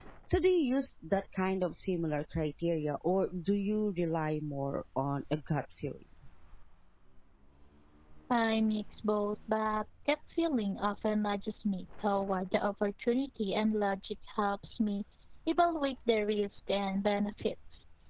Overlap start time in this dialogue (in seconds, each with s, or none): none